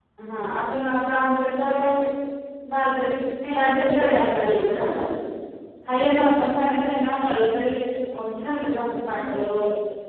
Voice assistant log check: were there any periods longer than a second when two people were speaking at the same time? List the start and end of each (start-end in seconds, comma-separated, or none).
3.6-4.9